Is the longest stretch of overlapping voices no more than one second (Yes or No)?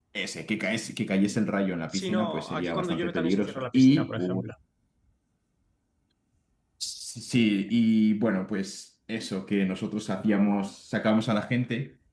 No